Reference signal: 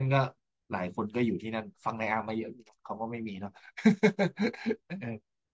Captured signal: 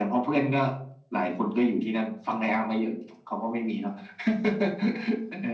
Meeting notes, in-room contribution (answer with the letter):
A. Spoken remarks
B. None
B